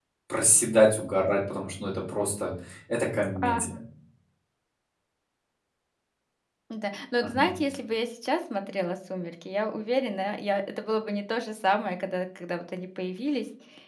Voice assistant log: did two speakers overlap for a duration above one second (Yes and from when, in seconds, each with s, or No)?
No